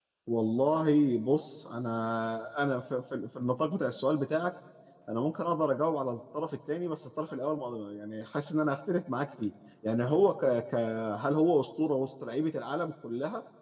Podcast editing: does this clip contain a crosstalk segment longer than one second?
No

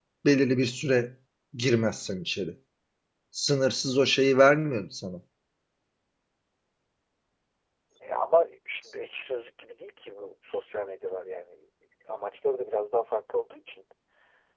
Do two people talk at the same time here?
No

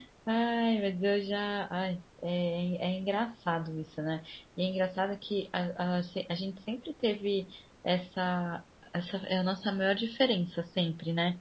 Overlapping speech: No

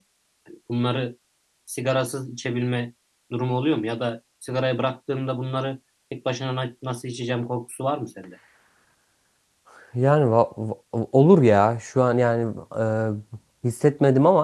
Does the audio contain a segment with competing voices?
No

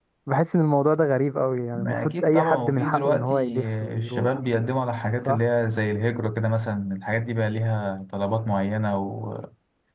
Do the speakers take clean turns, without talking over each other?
No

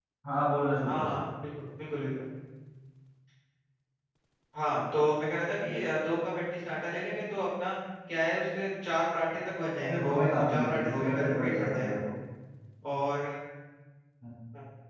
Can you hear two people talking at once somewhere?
Yes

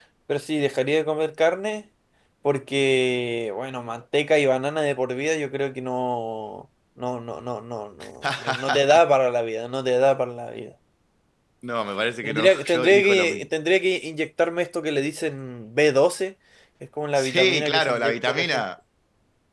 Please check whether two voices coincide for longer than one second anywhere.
Yes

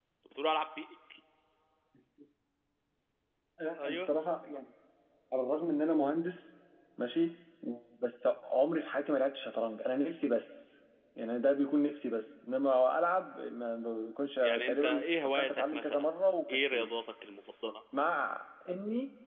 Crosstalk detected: Yes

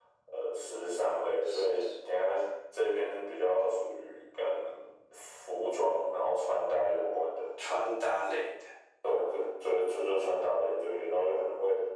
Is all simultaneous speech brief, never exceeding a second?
Yes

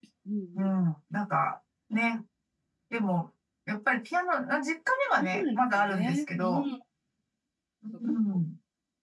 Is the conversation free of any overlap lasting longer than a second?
No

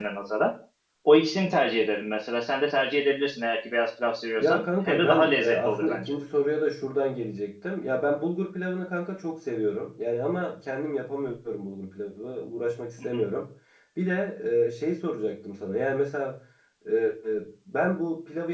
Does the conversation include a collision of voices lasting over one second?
Yes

